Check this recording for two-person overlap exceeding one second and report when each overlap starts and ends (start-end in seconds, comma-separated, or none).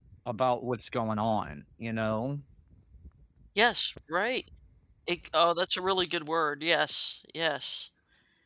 none